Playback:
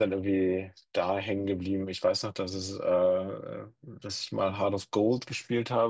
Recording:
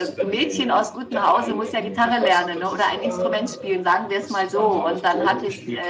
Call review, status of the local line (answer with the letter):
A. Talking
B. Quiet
A